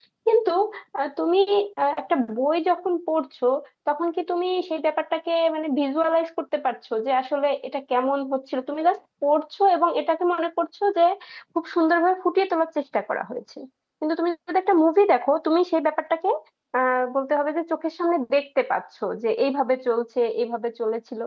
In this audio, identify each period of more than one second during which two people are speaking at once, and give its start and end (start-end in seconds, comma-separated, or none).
none